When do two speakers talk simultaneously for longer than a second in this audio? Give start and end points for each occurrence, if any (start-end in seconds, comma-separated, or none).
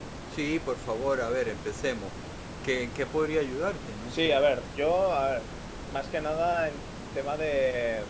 none